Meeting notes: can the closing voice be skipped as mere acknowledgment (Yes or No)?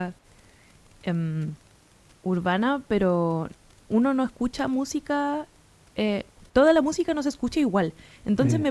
Yes